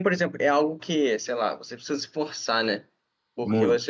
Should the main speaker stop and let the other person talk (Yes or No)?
No